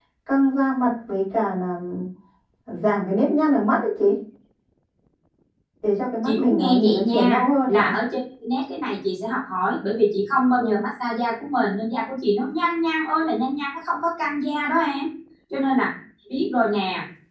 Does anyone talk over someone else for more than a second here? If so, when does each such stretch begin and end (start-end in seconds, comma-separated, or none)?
6.2-7.9